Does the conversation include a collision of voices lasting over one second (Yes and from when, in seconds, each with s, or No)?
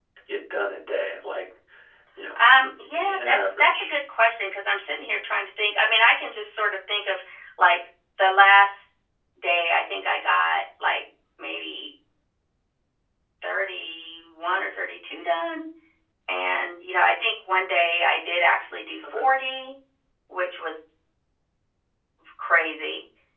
Yes, from 2.6 s